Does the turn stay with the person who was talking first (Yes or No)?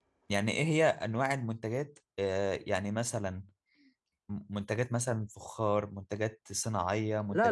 No